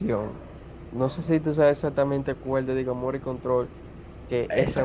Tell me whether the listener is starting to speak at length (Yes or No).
Yes